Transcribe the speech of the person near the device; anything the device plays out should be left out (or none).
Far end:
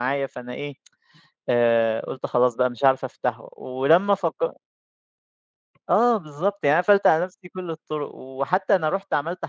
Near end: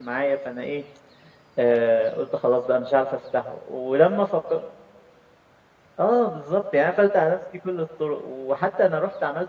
none